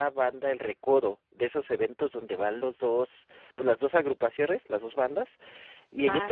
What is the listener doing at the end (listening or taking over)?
listening